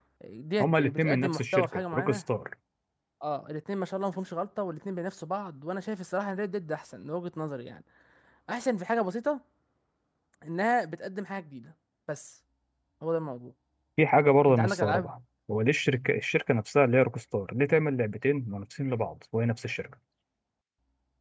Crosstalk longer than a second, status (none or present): present